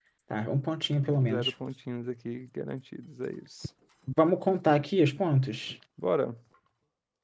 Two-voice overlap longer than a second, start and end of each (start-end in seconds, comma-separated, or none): none